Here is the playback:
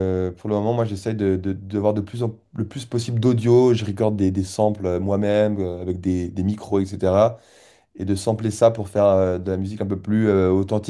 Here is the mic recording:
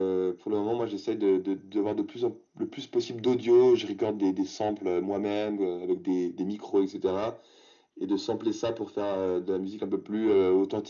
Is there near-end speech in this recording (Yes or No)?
No